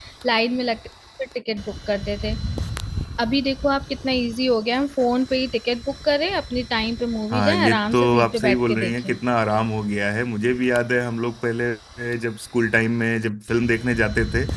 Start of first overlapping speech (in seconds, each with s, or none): 7.3 s